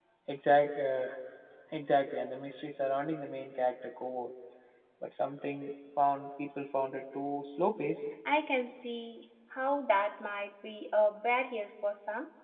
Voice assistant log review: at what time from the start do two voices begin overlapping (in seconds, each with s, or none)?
none